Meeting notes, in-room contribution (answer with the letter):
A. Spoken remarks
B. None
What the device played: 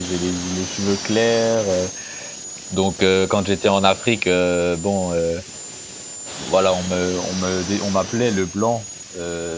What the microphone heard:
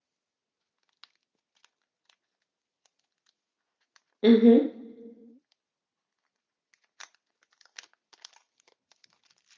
A